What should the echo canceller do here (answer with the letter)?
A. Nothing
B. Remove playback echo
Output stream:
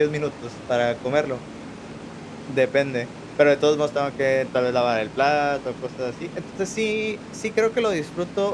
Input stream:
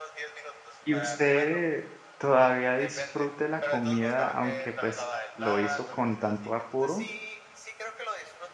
B